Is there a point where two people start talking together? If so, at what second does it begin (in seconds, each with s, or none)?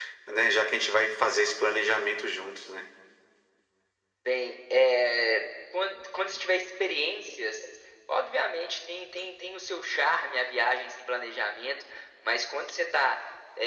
none